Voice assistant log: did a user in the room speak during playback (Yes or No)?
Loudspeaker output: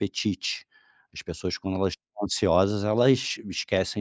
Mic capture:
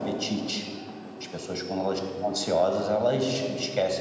No